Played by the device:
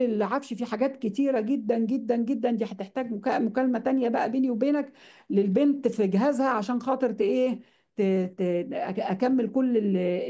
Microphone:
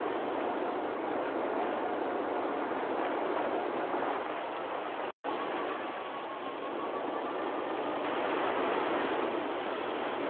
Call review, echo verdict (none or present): none